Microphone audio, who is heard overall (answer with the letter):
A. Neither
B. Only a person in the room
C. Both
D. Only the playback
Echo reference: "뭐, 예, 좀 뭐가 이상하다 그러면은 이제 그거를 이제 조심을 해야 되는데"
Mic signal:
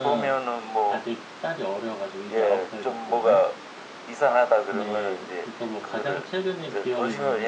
C